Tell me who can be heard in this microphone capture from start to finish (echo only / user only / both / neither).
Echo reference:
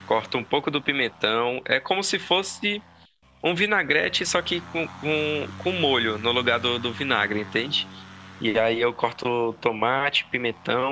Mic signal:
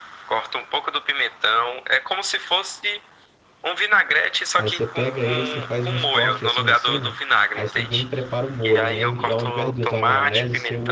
both